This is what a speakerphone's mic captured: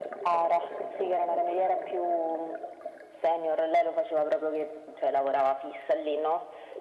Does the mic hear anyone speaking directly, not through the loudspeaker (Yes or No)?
No